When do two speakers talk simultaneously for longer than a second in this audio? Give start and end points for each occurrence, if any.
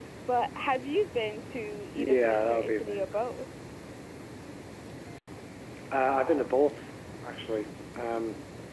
2.0-3.2

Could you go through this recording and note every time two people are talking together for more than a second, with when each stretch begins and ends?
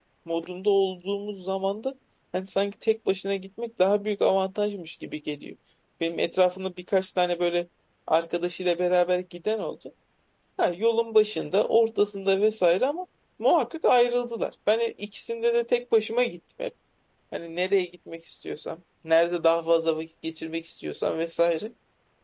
none

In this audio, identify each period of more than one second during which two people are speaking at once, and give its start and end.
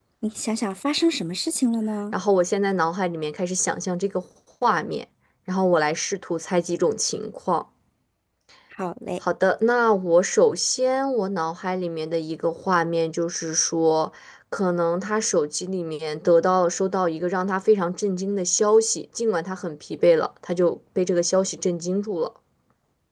none

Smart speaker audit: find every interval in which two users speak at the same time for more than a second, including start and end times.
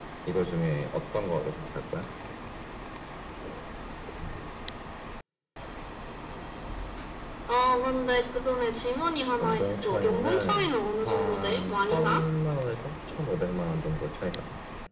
9.4-12.2

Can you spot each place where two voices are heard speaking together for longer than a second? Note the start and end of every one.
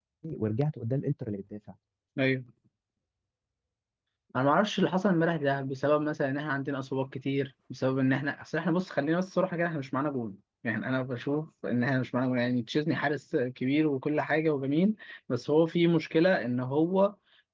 none

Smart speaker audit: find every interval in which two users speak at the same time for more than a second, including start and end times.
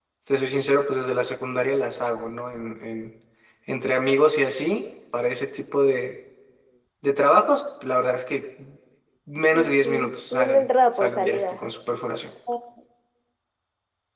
9.5-11.6

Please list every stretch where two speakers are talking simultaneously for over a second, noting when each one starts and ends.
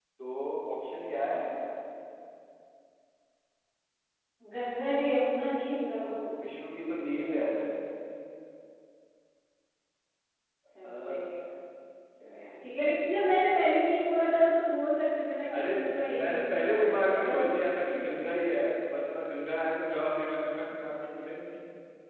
16.2-17.4

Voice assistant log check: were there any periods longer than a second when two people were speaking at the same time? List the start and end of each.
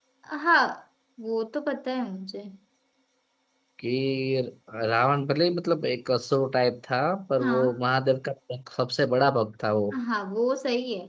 none

